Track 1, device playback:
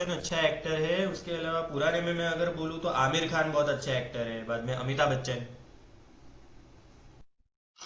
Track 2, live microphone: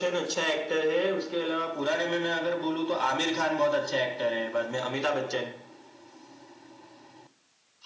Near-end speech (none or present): none